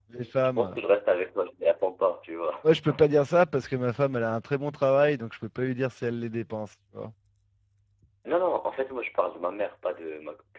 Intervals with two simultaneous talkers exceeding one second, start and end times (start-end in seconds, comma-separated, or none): none